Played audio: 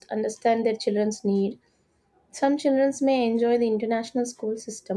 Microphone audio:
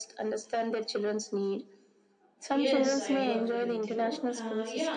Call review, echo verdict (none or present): present